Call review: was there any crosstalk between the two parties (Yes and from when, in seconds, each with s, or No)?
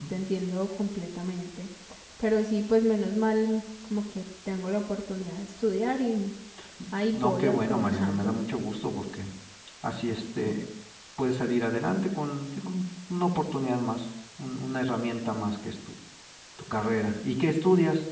Yes, from 7.1 s